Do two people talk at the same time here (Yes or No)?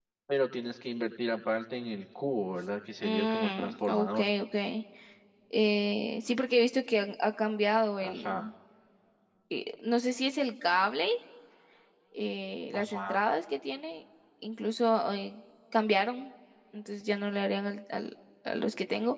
Yes